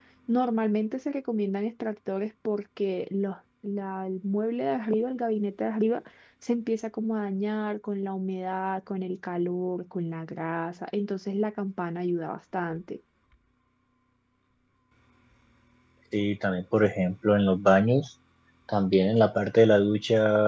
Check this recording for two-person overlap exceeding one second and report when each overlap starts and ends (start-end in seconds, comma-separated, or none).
none